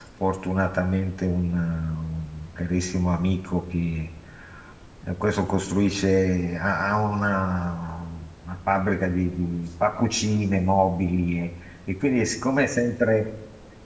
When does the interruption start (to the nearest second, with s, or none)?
none